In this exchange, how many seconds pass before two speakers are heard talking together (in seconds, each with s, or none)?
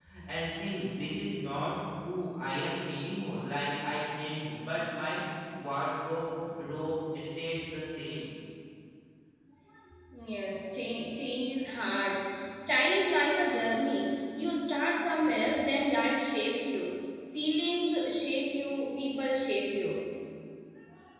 none